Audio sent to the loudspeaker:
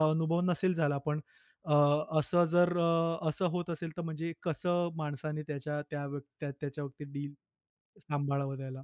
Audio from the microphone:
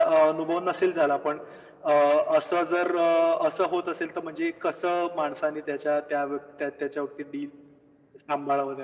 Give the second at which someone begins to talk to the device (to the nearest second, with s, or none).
none